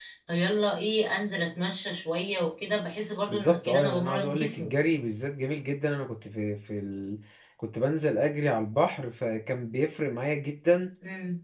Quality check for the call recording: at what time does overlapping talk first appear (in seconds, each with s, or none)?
3.3 s